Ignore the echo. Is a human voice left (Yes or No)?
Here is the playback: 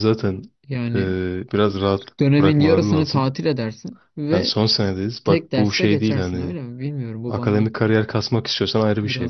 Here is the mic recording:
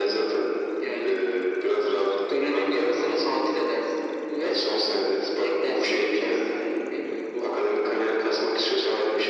No